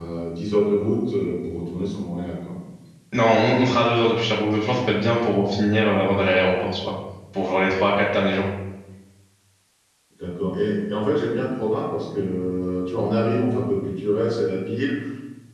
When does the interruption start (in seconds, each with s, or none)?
none